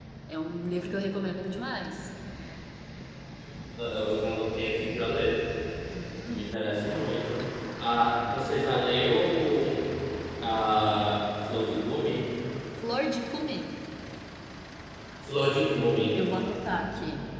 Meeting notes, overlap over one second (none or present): none